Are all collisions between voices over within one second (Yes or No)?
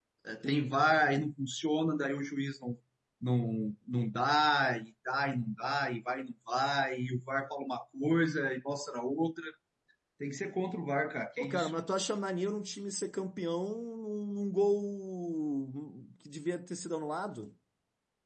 Yes